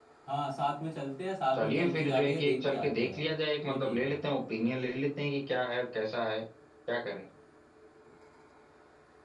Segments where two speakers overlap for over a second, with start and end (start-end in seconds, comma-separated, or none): 1.5-3.2